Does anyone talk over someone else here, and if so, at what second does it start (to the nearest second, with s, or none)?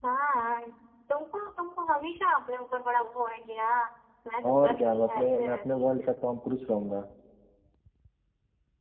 4 s